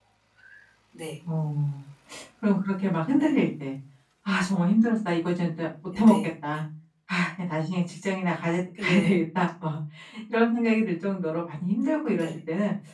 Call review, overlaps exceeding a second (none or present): none